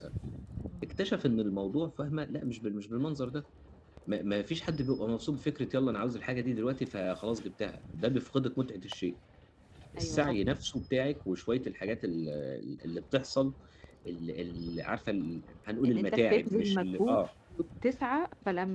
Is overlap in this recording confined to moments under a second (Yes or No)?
No